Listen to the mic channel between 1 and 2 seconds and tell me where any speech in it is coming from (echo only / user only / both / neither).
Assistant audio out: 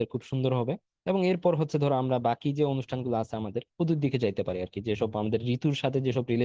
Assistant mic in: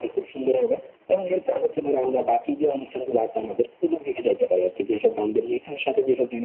echo only